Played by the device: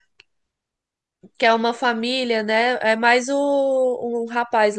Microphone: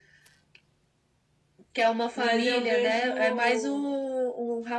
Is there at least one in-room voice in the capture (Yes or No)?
Yes